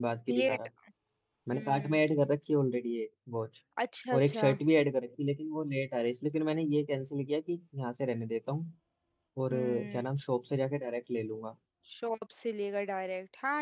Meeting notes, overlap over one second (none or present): none